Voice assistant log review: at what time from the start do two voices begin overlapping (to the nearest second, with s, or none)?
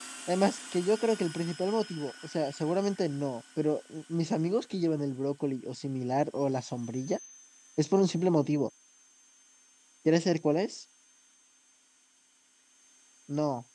none